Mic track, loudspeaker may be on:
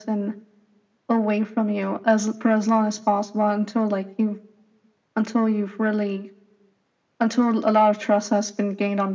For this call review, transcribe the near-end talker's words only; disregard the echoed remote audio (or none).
none